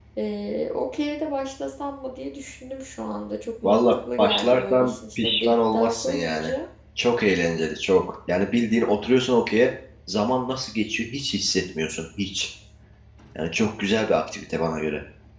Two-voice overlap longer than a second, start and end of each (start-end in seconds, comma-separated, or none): 3.6-6.5